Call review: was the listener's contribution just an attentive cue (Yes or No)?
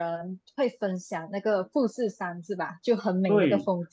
No